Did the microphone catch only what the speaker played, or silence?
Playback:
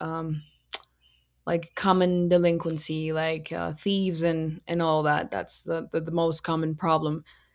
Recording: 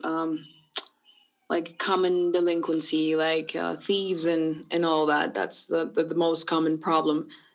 Yes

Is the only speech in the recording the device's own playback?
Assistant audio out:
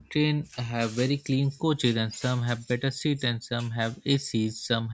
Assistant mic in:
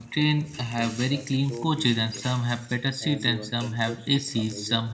No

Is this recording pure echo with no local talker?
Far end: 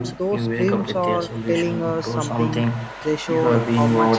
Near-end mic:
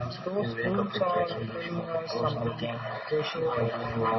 Yes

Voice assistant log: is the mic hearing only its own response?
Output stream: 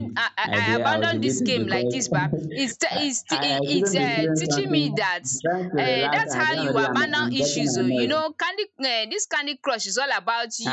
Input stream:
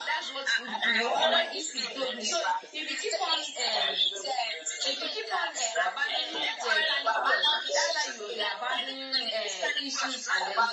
No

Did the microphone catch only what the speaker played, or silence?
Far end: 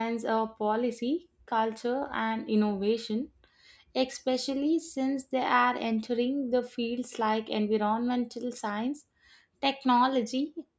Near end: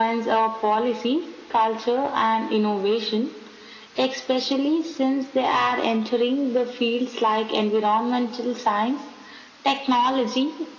Yes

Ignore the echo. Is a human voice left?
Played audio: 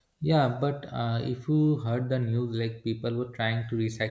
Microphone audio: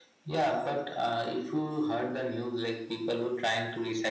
No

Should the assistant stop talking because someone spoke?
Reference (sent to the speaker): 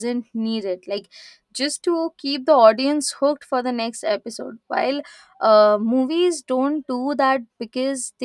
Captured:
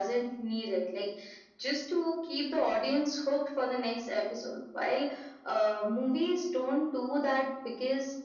No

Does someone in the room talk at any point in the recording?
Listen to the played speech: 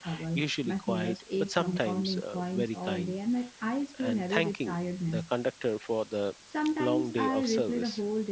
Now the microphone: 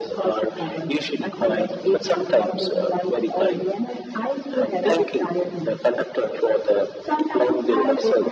No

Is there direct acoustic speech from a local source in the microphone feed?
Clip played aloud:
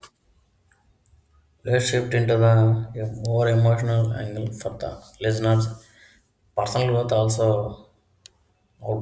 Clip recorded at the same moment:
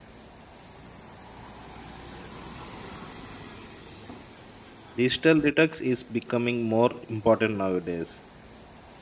Yes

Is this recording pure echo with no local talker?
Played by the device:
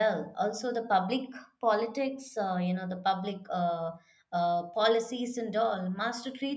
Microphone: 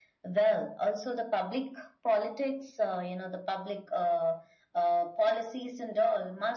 Yes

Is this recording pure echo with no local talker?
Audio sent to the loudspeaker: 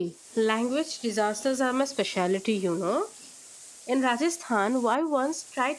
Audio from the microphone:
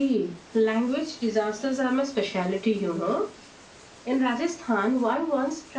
Yes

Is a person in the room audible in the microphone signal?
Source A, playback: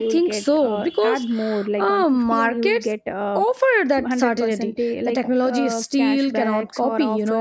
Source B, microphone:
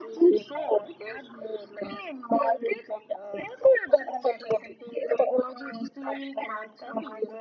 No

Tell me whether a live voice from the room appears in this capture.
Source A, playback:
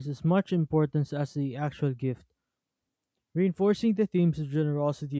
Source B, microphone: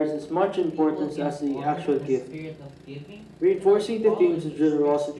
Yes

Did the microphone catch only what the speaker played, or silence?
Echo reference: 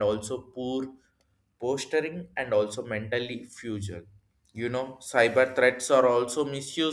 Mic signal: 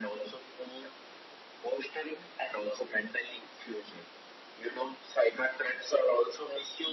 Yes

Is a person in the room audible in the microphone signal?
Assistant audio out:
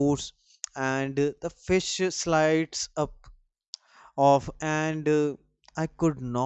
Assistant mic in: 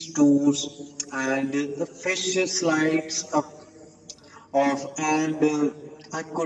No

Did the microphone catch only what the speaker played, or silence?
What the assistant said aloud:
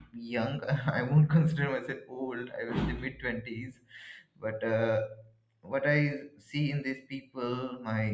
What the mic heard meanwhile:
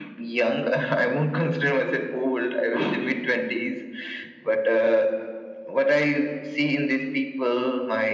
Yes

